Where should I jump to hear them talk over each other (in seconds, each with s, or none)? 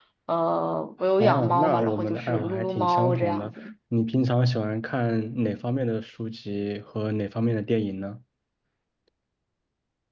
1.2 s